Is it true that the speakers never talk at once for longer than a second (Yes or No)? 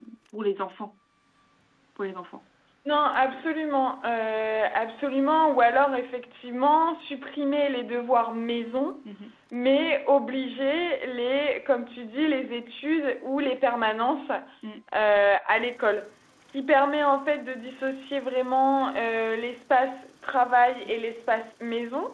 Yes